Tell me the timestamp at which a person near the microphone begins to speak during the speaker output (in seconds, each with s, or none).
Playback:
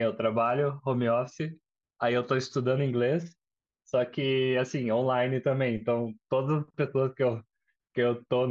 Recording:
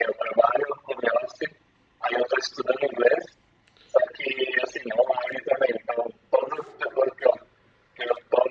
none